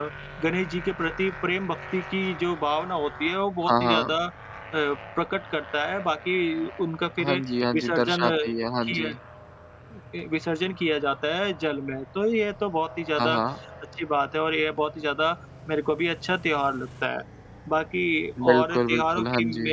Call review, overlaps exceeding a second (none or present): present